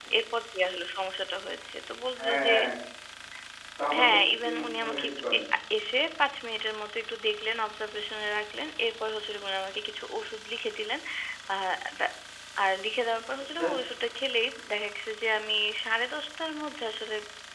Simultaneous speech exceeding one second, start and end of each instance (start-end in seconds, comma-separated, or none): 4.0-5.4